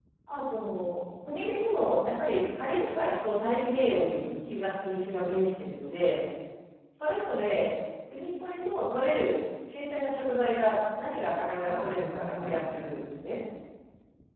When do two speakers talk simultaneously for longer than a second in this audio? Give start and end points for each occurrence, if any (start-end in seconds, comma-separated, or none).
11.7-12.9